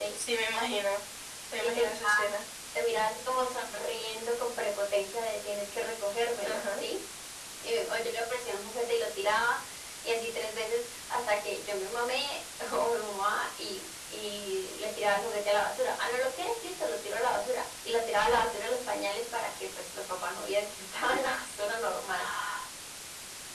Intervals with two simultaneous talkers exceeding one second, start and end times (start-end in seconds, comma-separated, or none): none